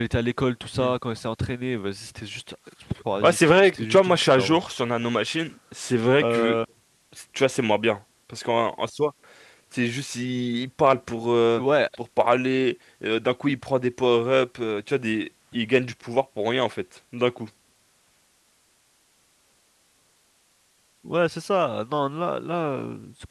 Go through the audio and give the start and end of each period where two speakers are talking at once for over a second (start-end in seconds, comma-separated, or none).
3.2-4.6